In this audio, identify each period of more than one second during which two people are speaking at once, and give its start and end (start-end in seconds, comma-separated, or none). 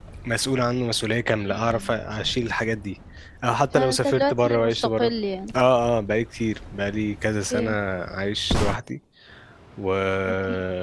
3.8-5.1